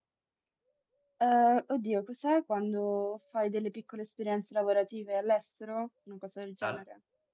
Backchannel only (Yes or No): No